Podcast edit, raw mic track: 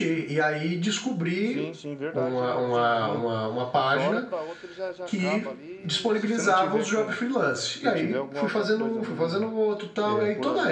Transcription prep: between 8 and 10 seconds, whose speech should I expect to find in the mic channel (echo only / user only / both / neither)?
both